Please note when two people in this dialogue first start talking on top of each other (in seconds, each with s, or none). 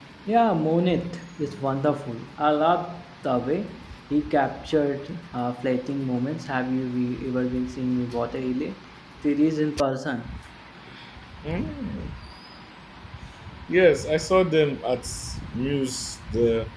none